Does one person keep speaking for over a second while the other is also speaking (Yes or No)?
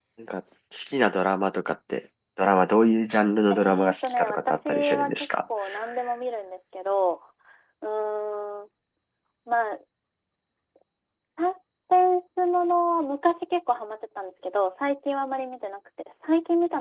Yes